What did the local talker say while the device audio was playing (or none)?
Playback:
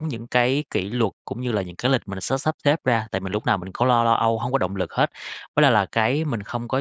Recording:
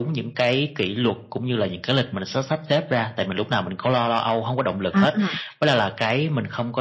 A, à.